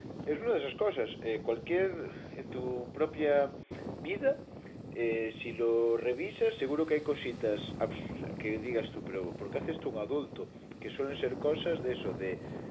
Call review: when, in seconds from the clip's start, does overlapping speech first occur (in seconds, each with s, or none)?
none